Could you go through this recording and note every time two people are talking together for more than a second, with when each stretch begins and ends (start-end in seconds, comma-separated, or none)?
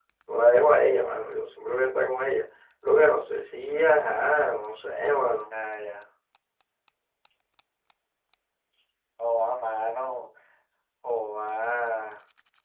none